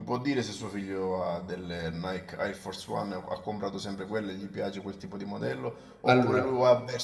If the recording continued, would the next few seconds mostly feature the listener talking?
No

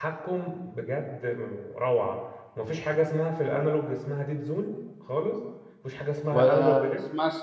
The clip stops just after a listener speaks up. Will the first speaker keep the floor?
No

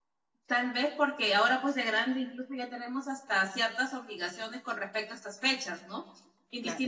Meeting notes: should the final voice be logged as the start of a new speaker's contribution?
No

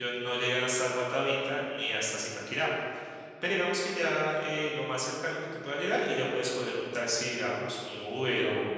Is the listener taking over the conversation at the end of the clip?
Yes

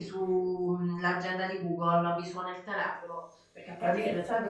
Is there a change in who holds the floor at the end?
Yes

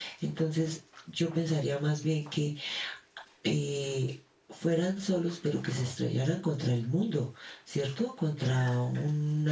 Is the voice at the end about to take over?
No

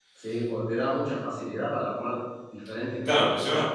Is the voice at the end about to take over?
Yes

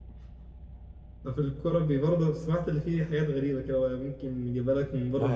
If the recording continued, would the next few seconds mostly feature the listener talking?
Yes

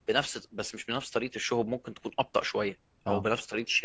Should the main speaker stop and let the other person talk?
No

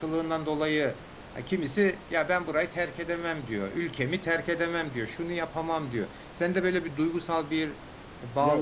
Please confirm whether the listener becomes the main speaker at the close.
Yes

